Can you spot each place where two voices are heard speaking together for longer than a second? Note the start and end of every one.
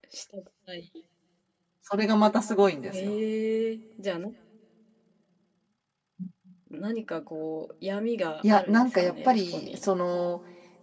8.5-9.8

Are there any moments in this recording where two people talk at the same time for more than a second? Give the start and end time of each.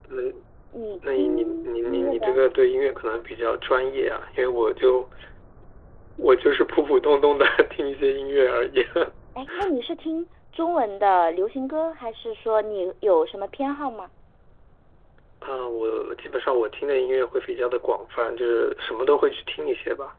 1.2-2.4

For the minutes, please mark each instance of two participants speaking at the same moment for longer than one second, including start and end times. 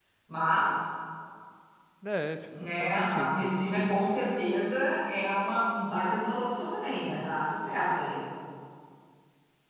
2.7-4.0

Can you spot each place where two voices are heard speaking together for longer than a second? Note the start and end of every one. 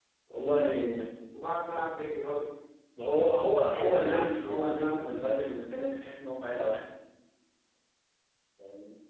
3.6-5.0

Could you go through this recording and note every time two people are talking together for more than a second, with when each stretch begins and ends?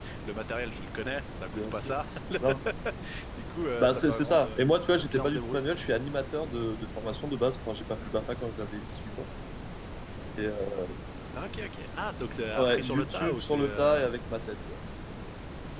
3.8-5.6, 12.6-14.0

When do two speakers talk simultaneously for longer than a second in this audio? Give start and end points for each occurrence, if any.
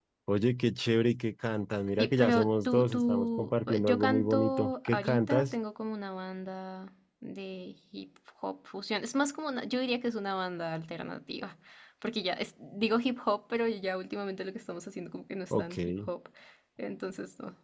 2.0-5.5

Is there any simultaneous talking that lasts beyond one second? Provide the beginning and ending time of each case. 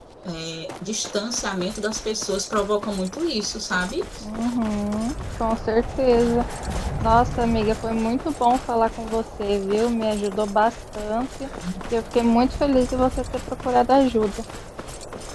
none

